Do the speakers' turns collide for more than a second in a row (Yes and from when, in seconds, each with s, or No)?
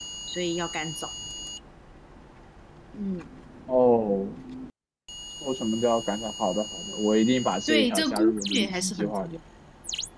Yes, from 7.7 s